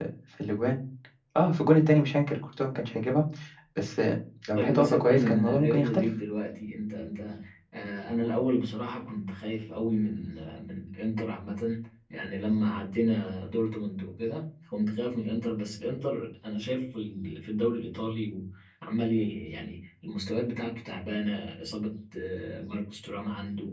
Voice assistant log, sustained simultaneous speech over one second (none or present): present